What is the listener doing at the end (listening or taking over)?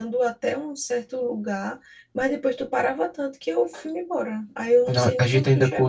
taking over